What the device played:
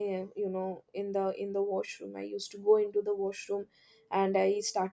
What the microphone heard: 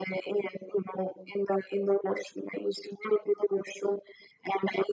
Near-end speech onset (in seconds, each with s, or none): none